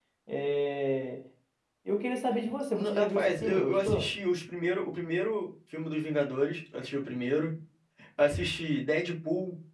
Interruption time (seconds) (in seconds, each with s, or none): 2.7 s